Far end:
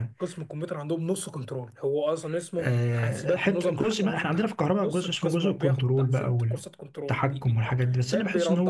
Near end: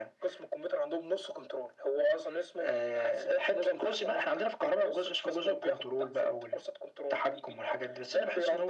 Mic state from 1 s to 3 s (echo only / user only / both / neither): echo only